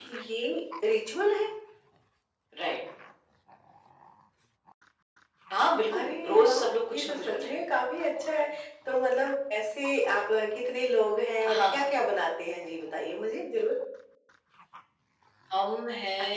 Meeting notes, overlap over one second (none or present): present